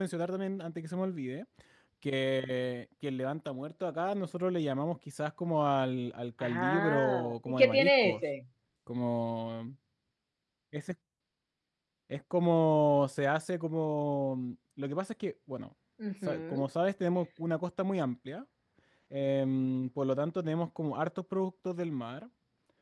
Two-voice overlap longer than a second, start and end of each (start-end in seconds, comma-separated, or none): 6.4-8.2